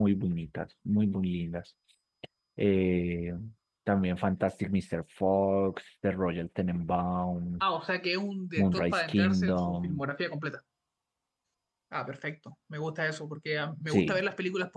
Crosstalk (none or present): present